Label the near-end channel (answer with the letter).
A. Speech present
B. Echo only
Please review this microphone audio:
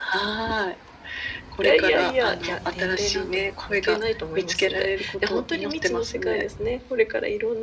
A